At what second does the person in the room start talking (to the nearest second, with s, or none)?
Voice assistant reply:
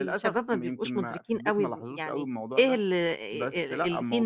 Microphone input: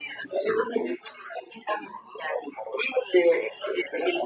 none